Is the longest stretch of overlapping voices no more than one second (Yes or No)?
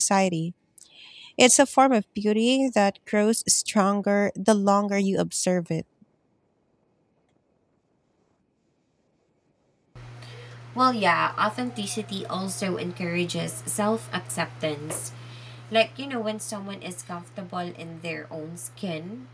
Yes